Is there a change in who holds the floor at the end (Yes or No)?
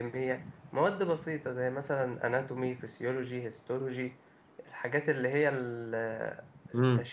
No